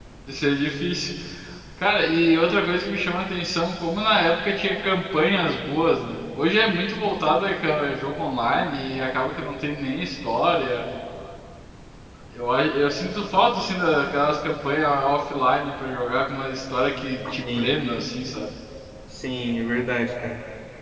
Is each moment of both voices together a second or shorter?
Yes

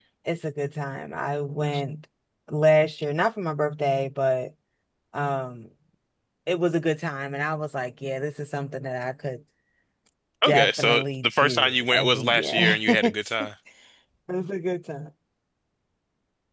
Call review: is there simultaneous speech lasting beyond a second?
Yes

